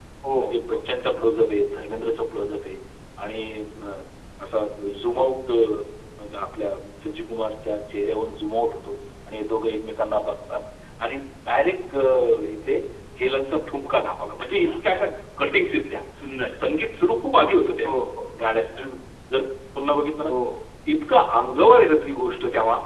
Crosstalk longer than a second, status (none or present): none